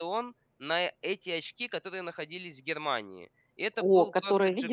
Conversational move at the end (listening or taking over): taking over